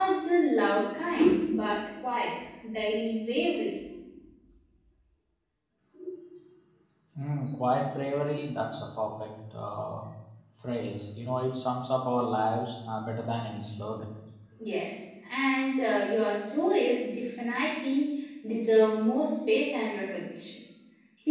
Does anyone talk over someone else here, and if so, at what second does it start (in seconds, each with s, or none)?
none